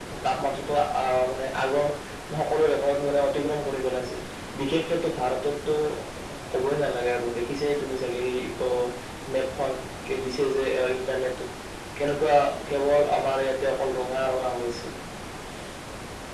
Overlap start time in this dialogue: none

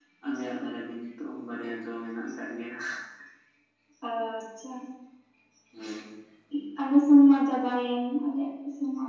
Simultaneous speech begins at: none

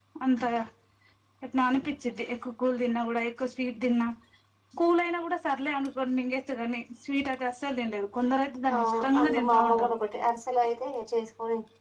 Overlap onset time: 8.7 s

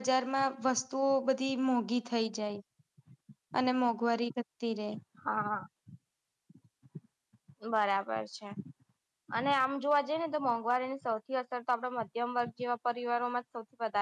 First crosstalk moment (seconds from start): none

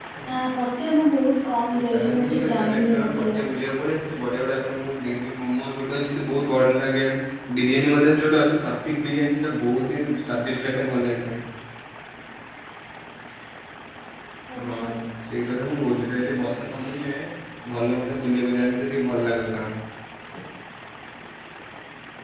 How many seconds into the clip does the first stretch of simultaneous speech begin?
1.9 s

